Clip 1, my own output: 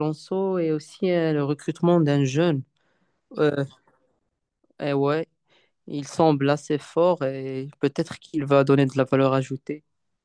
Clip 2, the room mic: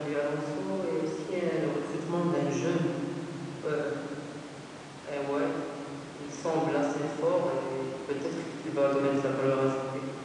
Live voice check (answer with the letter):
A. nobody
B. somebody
A